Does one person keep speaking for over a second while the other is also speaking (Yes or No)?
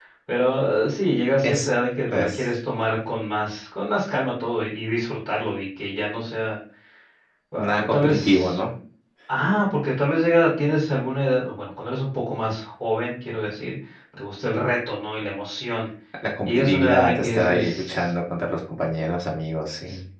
Yes